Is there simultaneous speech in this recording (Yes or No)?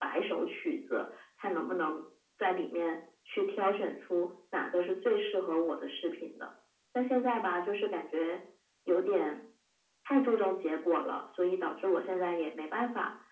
No